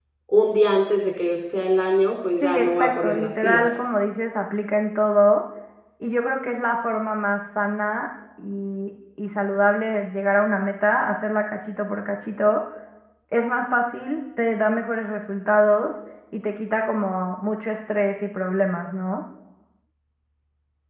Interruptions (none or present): present